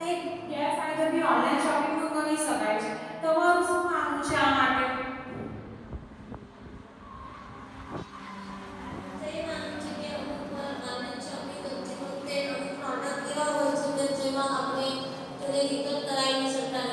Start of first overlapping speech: none

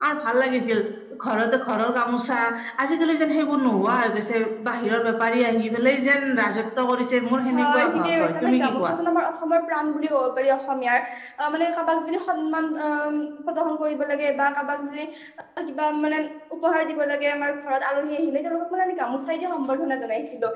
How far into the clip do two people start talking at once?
7.5 s

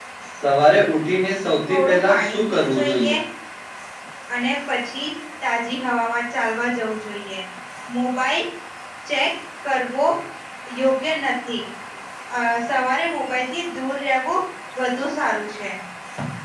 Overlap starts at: 1.7 s

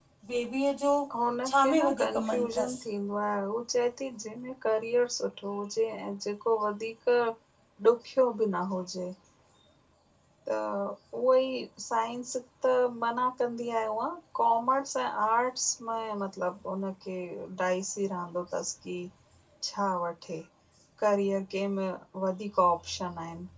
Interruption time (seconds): 1.4 s

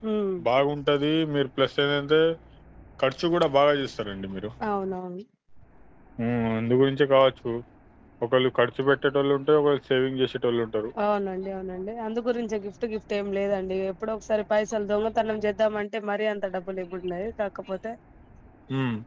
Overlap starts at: none

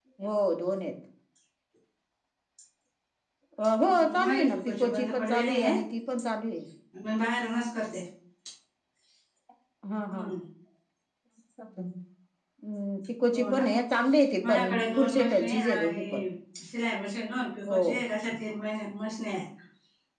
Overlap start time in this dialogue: 3.9 s

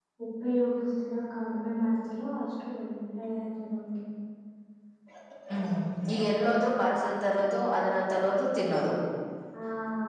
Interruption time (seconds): none

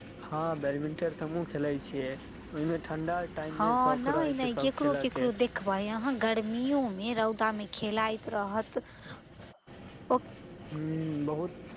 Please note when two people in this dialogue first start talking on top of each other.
3.5 s

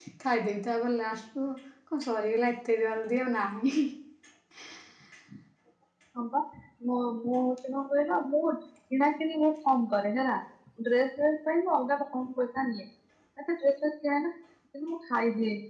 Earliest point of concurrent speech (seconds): none

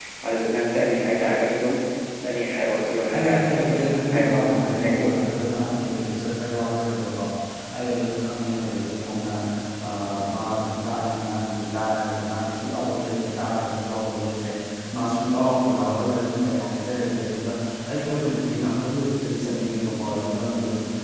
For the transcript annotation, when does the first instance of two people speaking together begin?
3.1 s

